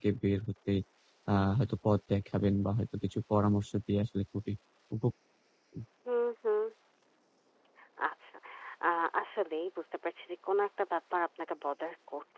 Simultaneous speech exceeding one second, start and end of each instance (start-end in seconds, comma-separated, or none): none